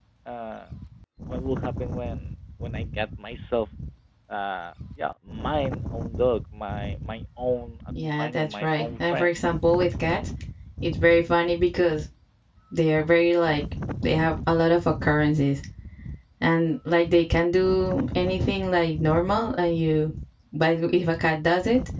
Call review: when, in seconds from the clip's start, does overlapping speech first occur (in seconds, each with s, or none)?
7.9 s